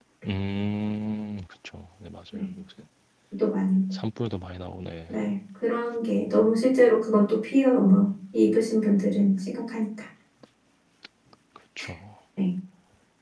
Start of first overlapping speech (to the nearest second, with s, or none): none